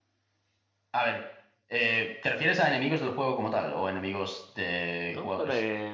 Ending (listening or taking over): taking over